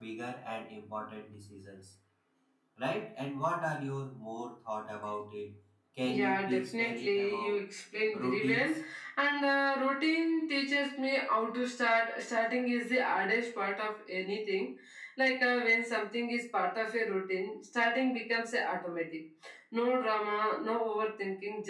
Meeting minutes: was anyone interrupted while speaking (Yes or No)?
Yes